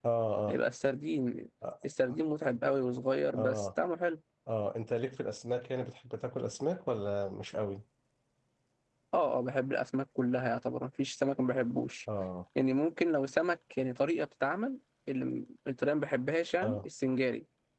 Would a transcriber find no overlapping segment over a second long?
Yes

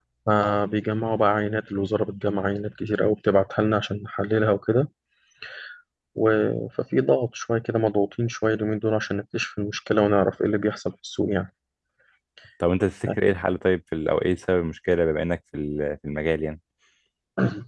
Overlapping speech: No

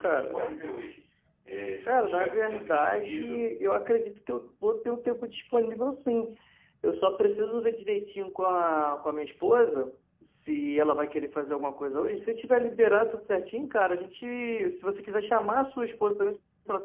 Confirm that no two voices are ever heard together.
No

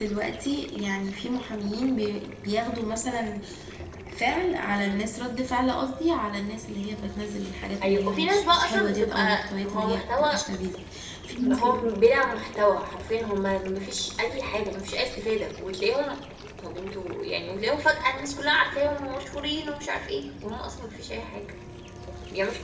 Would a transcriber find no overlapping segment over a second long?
No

